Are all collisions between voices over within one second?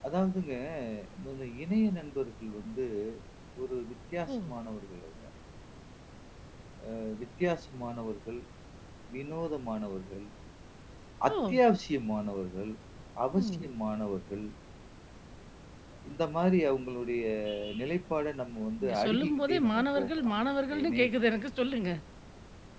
No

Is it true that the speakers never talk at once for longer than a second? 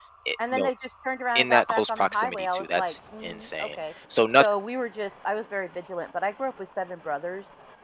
No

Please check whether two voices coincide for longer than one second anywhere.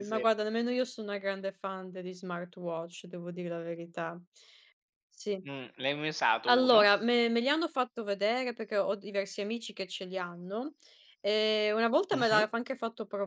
No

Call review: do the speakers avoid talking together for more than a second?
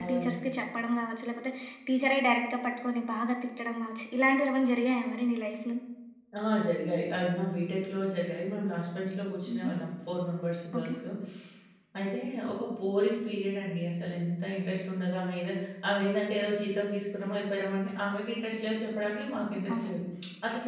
Yes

